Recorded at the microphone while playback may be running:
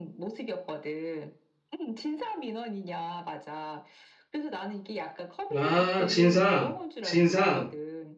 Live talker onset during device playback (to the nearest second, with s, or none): 6 s